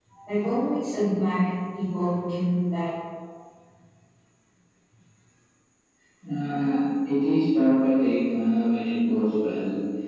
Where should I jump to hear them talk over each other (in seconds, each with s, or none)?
none